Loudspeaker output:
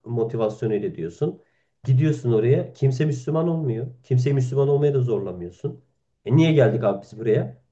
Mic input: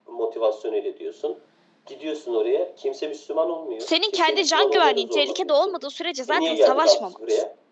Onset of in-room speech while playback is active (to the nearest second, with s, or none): 4 s